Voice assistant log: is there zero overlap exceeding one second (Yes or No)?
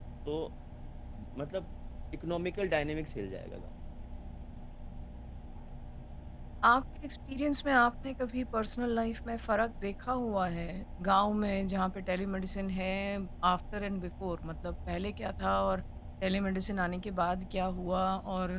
Yes